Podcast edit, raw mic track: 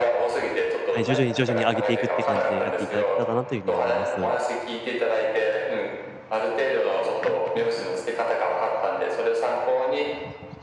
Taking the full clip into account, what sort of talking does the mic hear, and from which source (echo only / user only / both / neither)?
both